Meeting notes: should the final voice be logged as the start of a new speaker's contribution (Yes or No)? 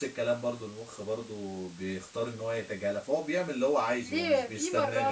Yes